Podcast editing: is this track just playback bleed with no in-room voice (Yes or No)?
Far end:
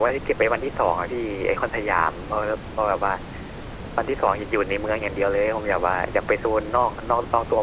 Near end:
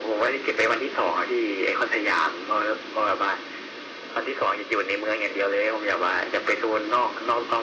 Yes